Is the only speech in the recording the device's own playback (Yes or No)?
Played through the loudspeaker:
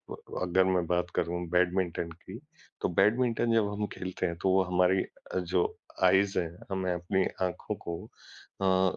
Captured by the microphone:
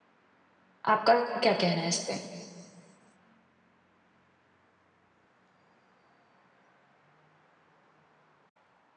No